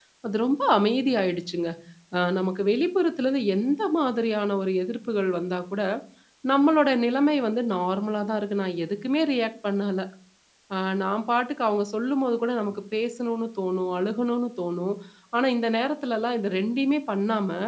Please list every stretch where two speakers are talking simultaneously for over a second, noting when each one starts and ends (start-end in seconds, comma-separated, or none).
none